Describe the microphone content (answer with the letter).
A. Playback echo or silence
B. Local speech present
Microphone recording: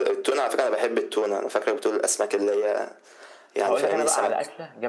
B